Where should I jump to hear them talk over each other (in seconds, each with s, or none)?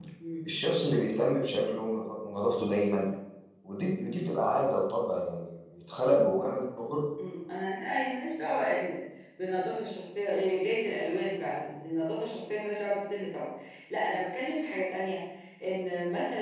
none